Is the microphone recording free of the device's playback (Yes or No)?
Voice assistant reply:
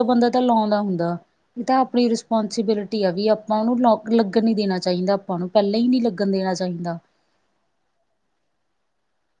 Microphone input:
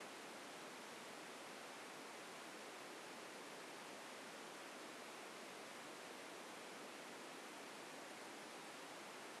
Yes